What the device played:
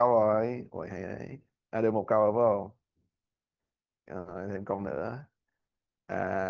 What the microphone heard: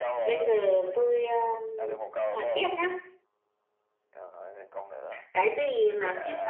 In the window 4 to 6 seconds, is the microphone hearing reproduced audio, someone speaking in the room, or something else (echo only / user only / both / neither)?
both